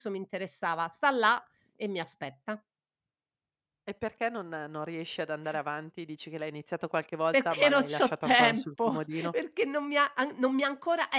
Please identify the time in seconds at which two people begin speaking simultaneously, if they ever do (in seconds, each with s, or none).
7.3 s